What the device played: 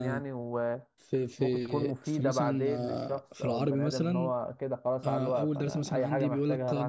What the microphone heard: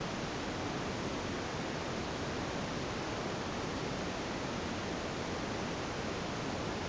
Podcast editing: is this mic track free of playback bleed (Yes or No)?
Yes